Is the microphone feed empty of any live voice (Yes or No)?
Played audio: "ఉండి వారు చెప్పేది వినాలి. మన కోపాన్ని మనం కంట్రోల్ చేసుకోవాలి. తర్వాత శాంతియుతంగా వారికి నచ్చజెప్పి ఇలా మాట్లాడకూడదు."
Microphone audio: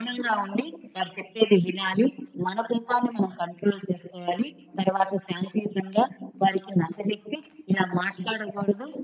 Yes